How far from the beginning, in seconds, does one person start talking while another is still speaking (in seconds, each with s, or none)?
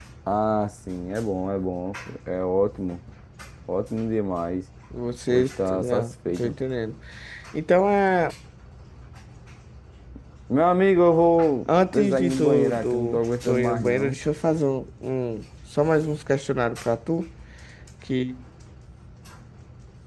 5.3 s